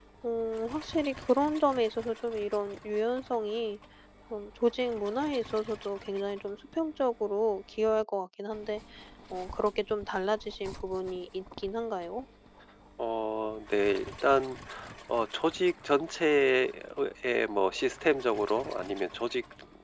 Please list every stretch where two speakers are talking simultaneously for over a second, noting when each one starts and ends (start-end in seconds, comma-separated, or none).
none